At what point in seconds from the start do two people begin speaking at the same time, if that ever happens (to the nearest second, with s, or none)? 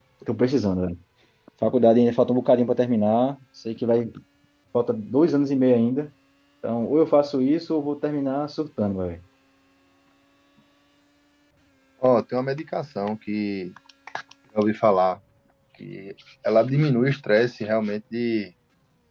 none